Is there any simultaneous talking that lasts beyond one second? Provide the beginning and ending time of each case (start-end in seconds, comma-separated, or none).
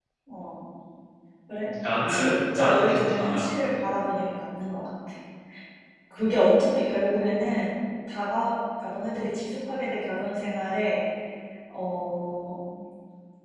2.1-3.5